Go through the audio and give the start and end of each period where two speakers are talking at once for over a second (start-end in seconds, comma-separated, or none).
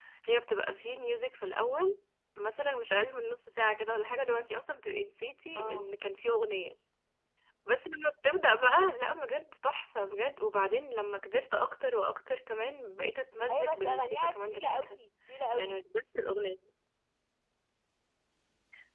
13.5-15.0